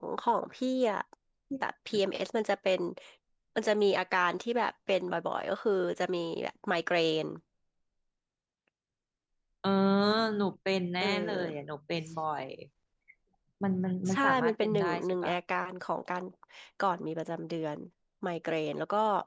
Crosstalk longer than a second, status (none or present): present